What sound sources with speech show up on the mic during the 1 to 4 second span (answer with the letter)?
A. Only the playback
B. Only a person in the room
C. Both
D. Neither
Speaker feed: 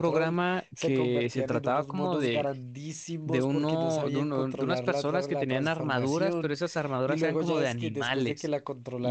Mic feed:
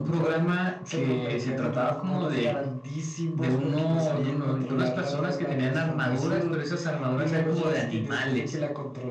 A